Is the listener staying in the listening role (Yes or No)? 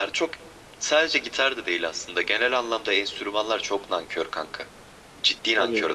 No